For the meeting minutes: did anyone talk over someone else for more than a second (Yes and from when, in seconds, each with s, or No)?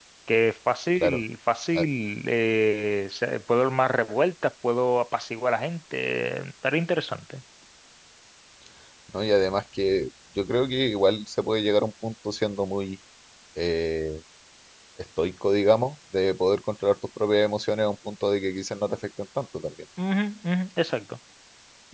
No